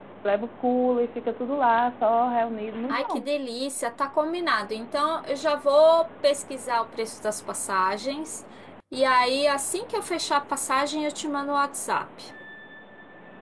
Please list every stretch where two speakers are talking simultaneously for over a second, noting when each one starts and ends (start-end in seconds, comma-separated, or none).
none